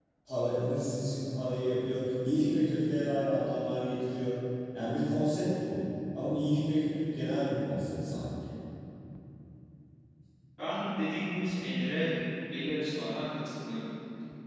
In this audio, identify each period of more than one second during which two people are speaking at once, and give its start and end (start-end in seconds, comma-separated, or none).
none